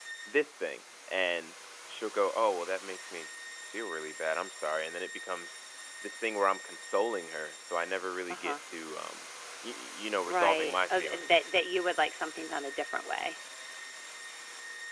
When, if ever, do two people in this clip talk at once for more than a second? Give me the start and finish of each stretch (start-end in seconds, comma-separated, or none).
10.3-11.5